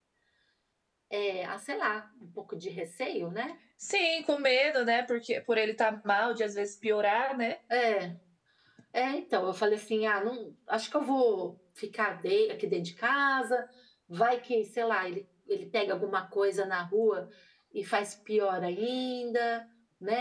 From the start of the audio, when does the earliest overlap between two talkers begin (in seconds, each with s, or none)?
none